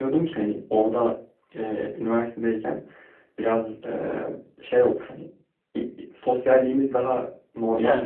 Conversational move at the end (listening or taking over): listening